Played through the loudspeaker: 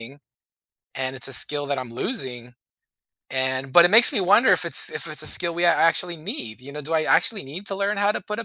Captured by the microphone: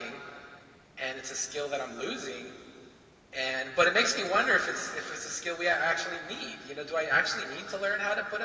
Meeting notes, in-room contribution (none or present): none